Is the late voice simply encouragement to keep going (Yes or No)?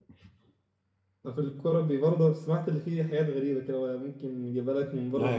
No